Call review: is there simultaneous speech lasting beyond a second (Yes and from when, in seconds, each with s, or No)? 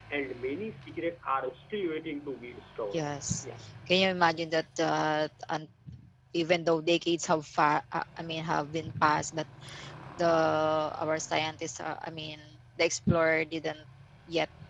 No